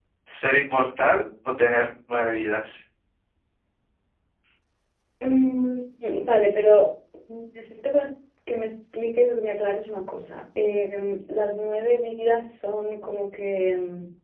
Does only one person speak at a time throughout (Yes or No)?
Yes